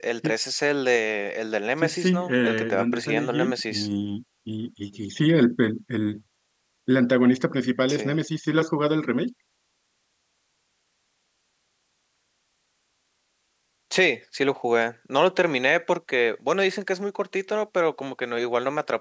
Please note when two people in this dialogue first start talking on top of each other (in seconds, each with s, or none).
1.8 s